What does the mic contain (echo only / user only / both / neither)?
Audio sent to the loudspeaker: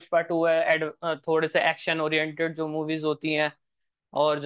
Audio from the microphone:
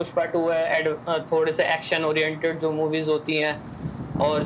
echo only